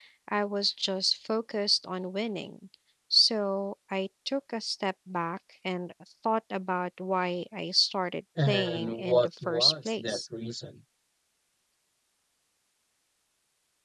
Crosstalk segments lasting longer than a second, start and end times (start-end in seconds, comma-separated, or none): 8.4-10.2